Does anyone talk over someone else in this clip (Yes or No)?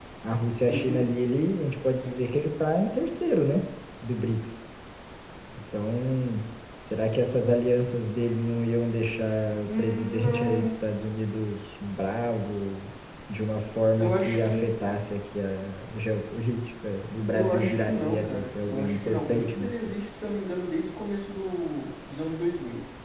Yes